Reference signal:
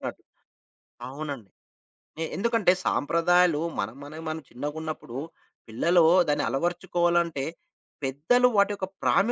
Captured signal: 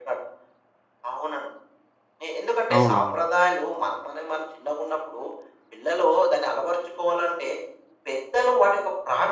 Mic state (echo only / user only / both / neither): both